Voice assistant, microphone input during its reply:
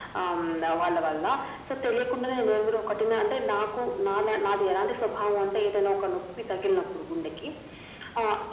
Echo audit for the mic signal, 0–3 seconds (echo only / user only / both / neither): echo only